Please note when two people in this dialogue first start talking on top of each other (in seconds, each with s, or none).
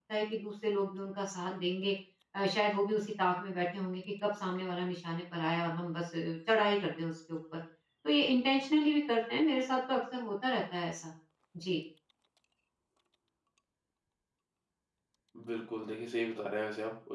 none